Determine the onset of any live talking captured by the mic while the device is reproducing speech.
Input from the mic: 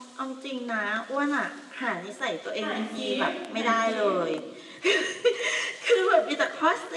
2.6 s

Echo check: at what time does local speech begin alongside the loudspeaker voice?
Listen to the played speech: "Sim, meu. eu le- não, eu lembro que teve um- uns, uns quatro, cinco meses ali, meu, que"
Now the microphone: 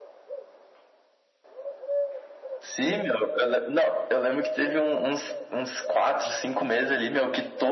none

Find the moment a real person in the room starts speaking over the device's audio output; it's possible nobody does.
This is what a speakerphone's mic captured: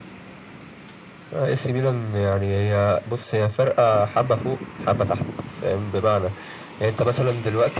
none

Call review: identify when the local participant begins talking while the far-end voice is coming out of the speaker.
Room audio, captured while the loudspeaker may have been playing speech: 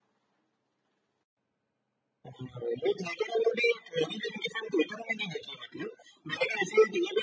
none

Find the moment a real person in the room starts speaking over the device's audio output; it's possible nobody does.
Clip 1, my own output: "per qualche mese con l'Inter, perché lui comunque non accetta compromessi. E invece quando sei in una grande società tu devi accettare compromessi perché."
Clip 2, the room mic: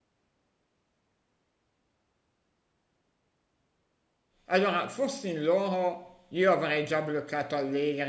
4.5 s

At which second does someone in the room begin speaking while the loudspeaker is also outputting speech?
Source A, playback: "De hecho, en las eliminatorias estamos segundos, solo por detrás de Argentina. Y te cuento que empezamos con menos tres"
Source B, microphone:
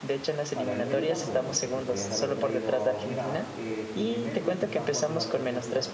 0.5 s

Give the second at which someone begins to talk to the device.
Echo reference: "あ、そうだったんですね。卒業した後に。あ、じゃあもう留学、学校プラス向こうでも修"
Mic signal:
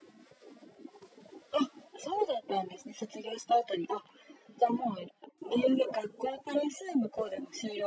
none

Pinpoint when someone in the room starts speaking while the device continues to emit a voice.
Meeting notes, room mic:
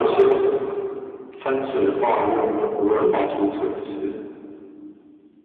2.9 s

